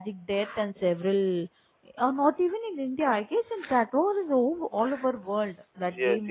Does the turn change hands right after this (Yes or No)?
Yes